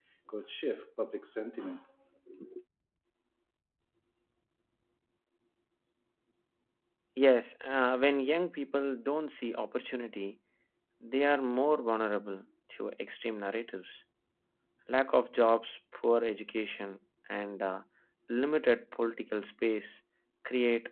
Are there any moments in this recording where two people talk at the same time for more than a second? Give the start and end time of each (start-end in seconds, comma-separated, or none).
none